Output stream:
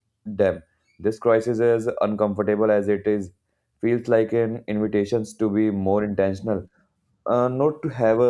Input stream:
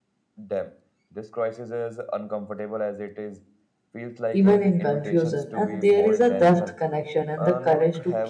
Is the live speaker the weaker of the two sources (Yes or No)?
No